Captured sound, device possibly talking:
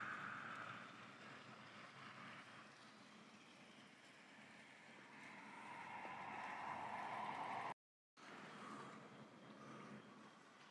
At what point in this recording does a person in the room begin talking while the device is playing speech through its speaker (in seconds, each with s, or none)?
none